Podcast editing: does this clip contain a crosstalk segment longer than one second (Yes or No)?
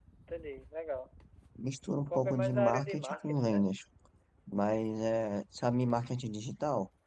Yes